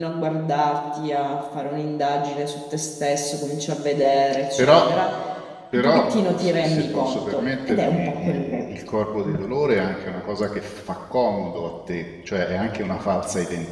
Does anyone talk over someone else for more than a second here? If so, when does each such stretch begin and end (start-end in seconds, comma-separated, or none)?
5.8-8.7